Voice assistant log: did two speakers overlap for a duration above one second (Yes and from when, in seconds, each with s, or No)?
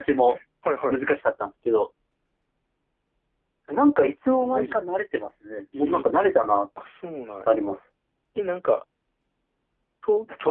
No